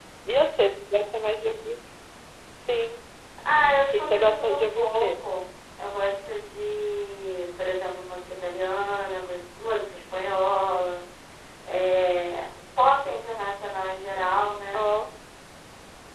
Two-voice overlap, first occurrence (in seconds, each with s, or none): 3.9 s